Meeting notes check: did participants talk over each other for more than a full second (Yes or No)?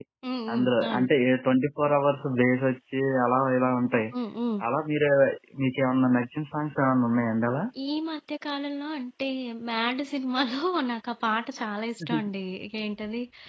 No